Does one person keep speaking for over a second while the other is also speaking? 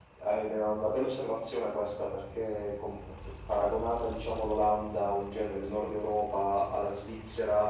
No

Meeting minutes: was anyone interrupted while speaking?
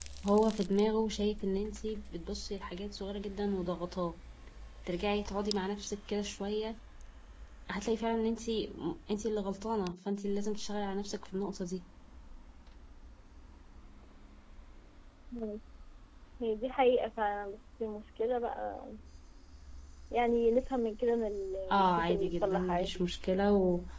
Yes, from 21.7 s

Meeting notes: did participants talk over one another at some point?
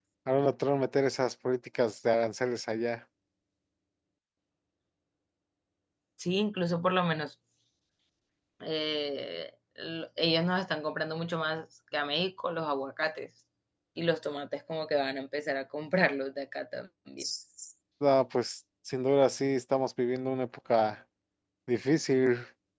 No

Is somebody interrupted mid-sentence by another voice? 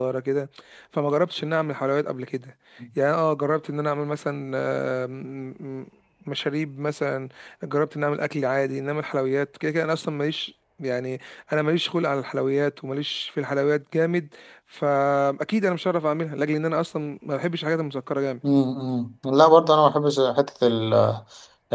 No

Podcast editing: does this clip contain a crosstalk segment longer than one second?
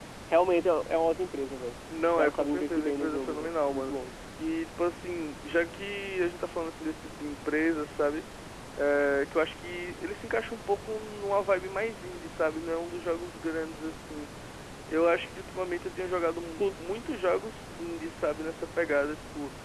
Yes, from 2.2 s

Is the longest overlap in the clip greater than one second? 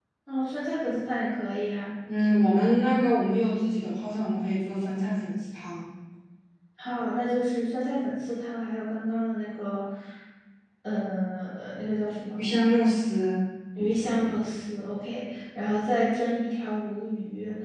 No

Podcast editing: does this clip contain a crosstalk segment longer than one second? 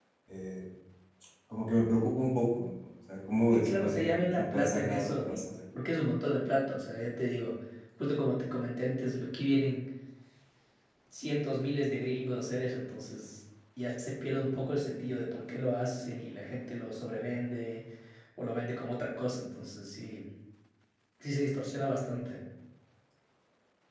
Yes, from 3.5 s

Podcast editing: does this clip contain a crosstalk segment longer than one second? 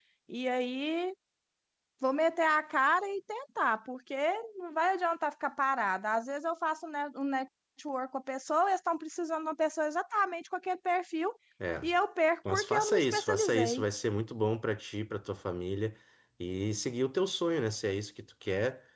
Yes, from 12.5 s

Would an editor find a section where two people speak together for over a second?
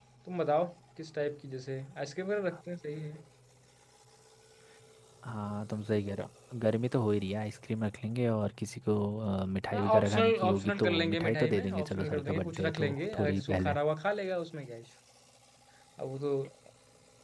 Yes, from 9.7 s

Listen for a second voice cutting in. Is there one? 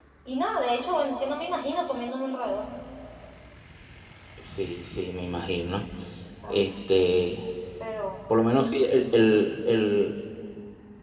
No

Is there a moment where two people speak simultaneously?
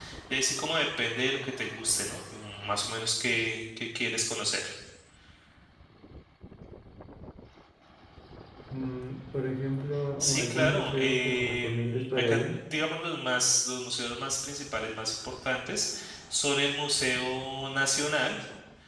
Yes, from 10.2 s

